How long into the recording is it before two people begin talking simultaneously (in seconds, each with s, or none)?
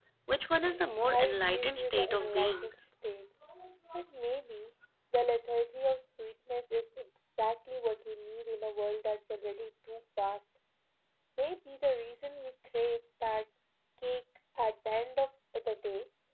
1.1 s